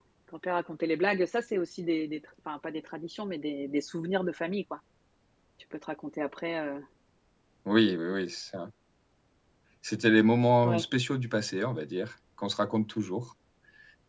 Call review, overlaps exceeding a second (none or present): none